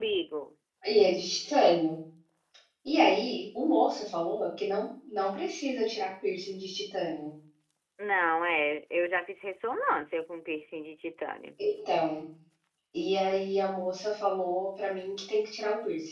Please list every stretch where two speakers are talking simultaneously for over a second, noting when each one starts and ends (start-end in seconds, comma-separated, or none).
none